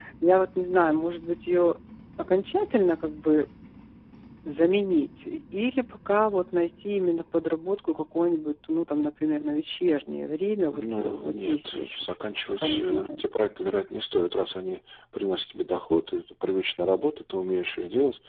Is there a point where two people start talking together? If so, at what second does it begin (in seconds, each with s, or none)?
10.7 s